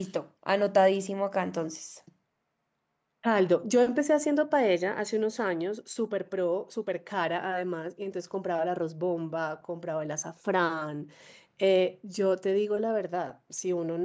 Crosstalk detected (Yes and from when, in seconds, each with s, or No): No